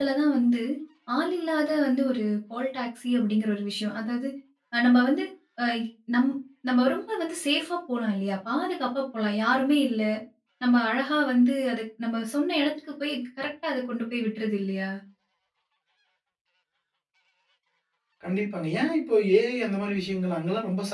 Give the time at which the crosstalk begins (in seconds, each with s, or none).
none